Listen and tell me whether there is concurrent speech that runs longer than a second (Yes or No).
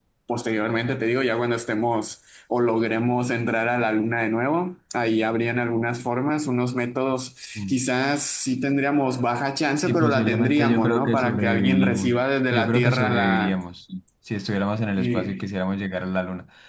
Yes